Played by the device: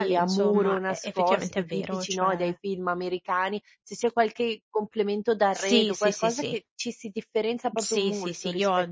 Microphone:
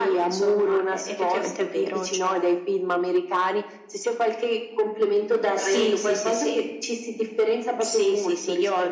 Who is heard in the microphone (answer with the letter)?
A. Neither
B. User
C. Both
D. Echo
D